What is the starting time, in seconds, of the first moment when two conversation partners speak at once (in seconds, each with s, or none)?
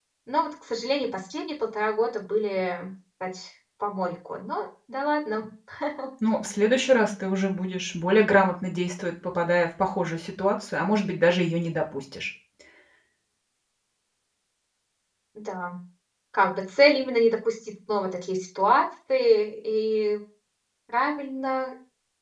none